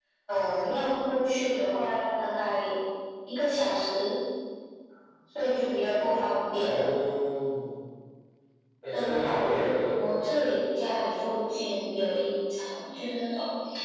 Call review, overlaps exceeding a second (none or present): present